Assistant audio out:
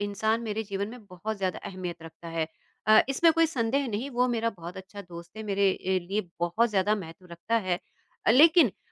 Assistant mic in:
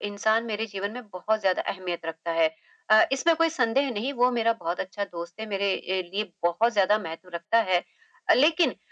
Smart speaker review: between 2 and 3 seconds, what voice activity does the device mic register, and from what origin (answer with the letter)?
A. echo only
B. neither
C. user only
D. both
A